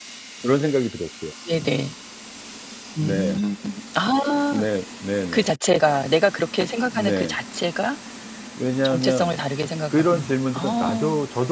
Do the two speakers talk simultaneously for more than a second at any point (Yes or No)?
Yes